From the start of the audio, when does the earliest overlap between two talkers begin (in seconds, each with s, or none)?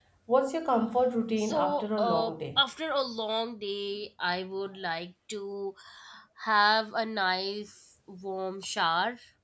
1.4 s